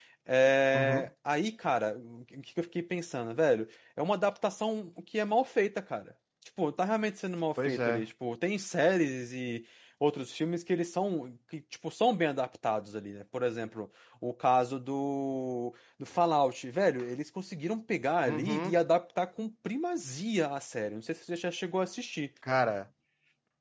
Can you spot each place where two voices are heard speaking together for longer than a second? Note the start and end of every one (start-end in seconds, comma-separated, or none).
none